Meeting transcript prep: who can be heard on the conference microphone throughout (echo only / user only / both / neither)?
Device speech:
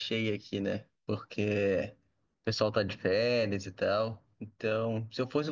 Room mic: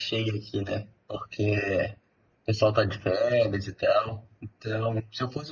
echo only